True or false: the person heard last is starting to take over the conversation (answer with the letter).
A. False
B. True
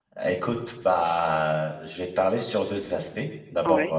A